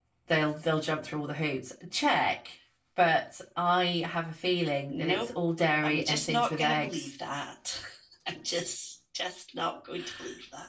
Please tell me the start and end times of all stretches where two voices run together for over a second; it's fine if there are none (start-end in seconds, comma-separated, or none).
5.8-7.1